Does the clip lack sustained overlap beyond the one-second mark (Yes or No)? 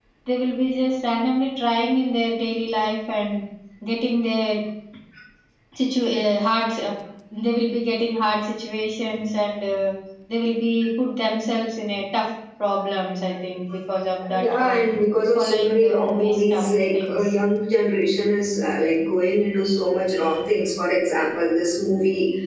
No